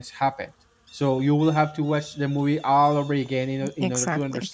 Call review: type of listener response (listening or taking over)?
taking over